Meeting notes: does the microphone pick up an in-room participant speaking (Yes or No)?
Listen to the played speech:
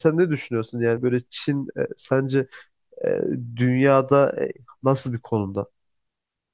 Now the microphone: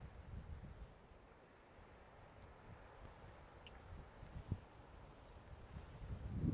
No